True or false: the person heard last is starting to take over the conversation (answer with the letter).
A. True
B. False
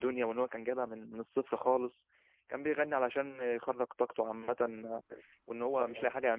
B